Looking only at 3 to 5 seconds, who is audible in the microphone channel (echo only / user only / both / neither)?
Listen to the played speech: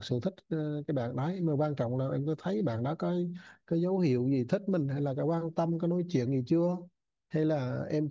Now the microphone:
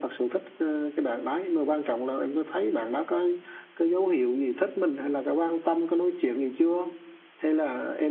echo only